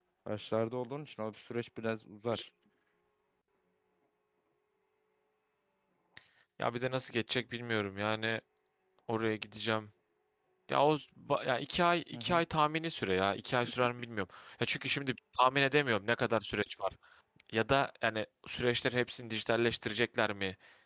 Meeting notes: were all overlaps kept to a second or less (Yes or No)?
Yes